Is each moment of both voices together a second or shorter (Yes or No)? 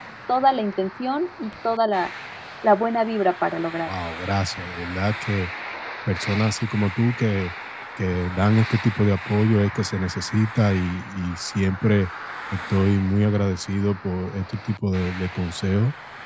Yes